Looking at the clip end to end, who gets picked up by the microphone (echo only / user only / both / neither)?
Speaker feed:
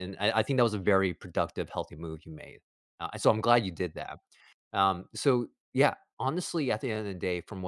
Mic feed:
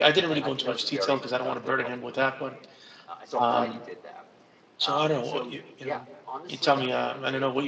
both